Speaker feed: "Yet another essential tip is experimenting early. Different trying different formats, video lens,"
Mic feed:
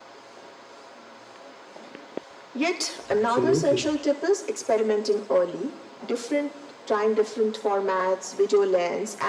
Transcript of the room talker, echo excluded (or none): Absolutely.